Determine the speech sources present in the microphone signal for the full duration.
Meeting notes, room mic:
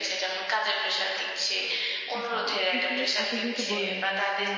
both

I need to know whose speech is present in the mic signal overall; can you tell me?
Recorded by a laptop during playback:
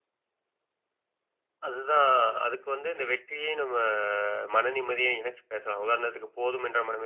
both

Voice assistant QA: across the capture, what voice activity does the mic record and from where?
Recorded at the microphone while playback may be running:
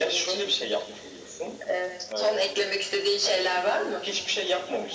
both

